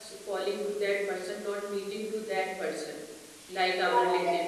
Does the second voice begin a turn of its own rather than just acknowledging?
Yes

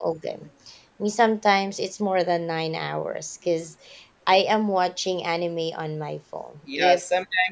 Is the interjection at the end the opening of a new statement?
Yes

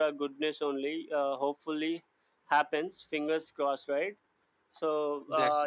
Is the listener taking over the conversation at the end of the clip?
No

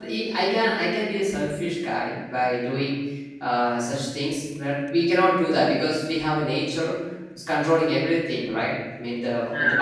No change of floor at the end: Yes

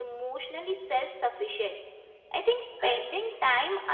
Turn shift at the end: No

